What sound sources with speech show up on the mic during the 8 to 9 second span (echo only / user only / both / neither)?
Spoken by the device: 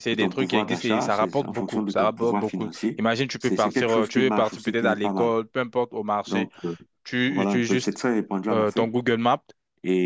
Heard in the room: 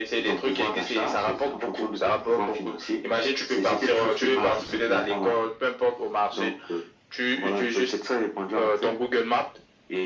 echo only